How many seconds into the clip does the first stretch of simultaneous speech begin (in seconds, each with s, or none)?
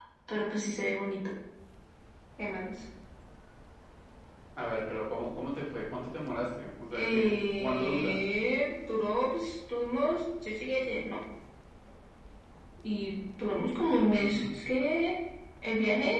6.9 s